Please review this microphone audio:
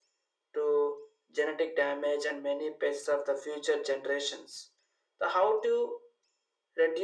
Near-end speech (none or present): none